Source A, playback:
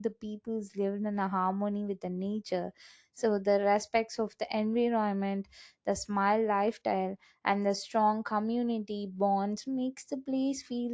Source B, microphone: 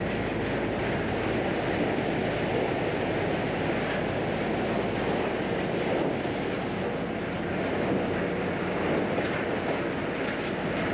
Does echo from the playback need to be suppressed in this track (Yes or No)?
No